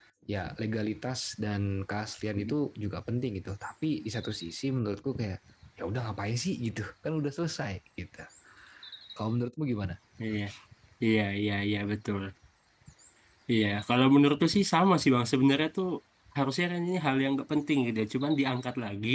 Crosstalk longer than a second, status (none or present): none